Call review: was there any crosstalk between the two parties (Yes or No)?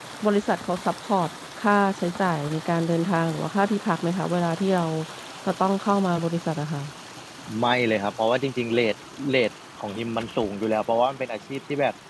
No